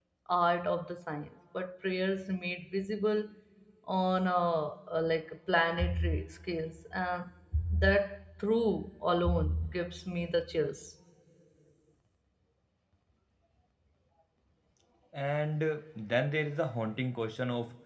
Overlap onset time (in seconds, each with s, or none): none